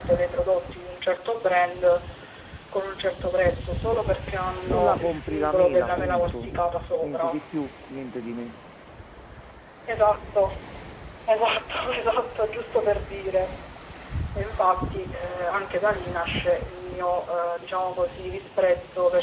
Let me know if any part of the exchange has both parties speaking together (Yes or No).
Yes